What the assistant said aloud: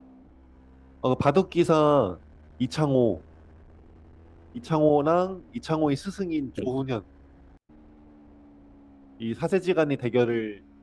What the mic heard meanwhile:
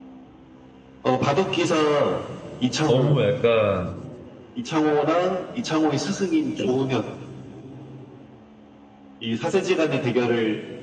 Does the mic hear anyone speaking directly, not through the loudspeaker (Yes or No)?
Yes